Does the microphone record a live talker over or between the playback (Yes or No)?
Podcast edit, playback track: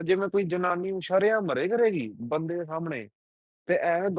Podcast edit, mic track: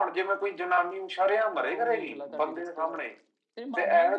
Yes